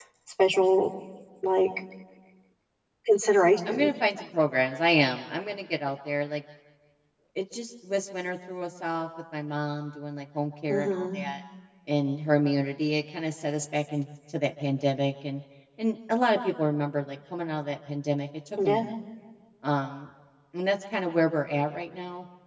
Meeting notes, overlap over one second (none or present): none